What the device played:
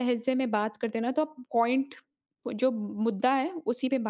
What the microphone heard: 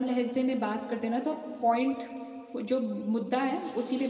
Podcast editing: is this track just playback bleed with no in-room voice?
Yes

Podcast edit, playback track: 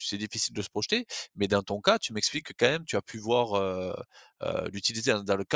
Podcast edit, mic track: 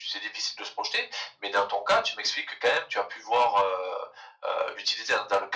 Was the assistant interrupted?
No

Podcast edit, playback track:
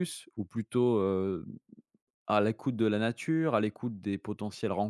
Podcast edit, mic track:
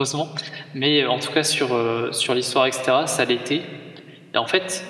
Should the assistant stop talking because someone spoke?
Yes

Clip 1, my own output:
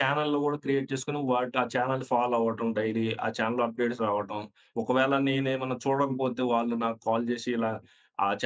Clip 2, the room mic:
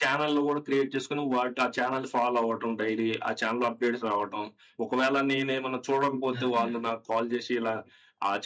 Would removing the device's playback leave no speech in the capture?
No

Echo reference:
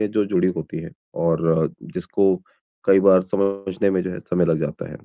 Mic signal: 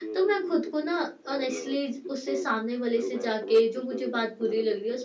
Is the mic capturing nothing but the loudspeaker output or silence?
No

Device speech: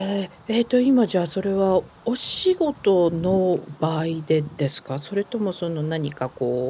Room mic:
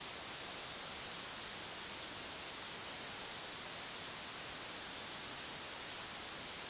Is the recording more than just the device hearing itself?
No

